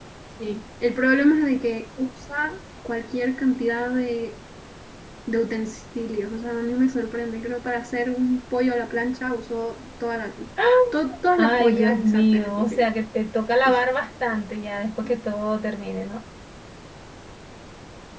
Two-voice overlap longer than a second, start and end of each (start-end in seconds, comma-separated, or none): 11.4-12.9